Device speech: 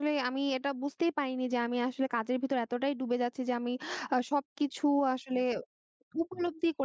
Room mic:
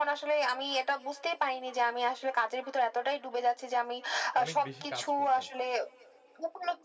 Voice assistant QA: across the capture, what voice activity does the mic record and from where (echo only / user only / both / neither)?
both